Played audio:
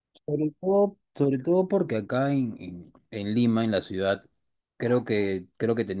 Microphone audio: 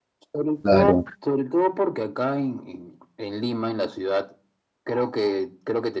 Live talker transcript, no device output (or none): claro.